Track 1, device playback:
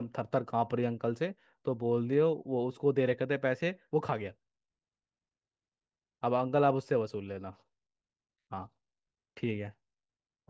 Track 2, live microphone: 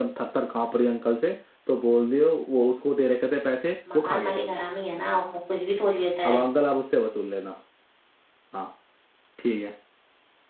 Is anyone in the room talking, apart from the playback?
Yes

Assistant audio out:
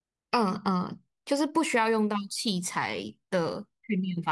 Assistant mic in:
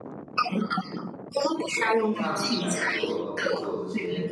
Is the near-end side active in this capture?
Yes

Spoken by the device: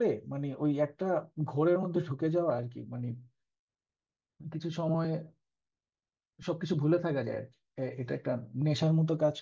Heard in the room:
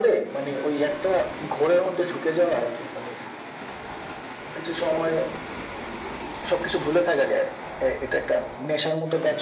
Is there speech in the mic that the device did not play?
No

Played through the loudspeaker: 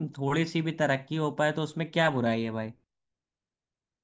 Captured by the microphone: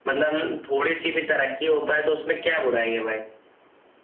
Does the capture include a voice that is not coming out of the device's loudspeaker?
No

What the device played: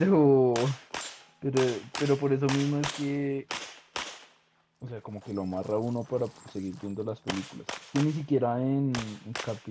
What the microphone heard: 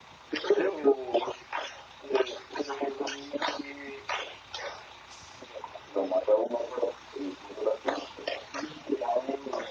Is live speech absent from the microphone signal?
Yes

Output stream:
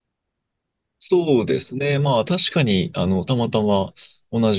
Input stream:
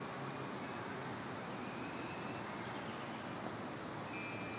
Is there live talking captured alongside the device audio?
No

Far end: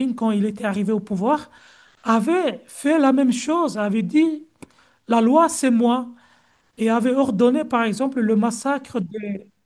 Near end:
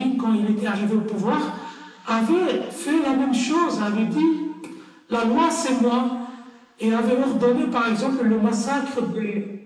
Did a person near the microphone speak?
No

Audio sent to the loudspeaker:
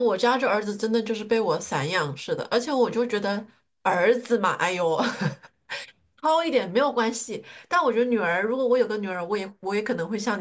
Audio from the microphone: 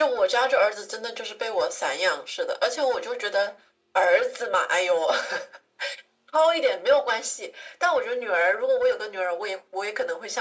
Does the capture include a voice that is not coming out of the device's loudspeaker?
No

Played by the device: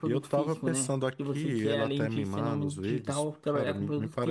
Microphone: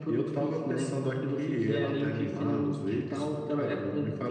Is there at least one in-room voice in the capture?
No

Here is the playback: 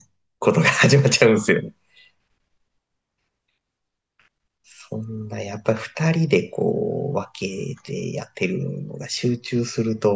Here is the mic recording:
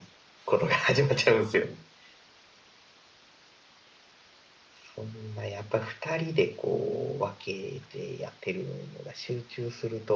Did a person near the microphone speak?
No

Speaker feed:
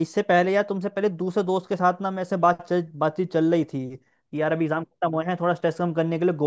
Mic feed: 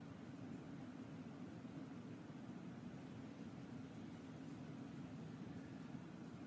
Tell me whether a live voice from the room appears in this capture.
No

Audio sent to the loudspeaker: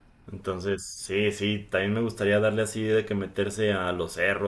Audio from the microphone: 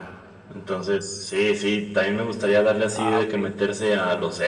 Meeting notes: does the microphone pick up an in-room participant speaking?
Yes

